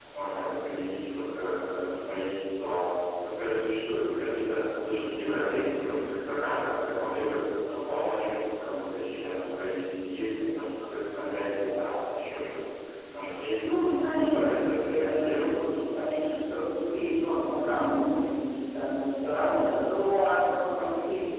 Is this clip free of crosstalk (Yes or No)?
No